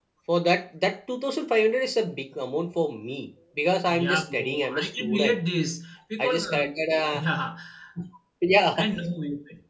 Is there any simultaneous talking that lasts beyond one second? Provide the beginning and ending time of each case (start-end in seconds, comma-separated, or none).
3.9-5.4